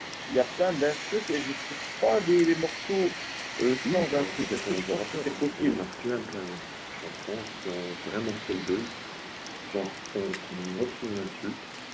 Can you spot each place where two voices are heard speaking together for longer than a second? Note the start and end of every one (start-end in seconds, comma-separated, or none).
3.8-5.8